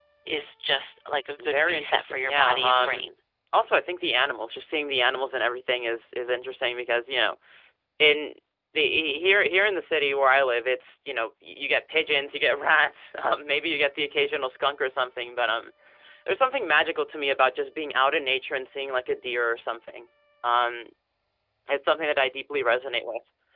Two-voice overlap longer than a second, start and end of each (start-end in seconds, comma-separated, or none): 1.4-3.0